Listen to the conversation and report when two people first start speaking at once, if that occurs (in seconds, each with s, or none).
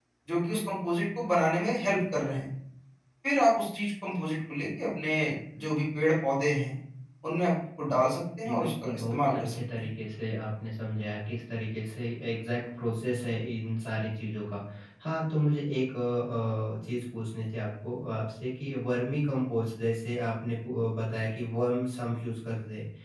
8.4 s